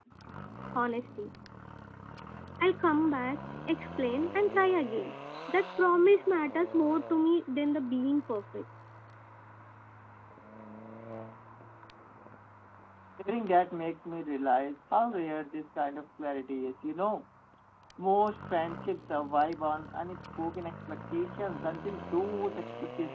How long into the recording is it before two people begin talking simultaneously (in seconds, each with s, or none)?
none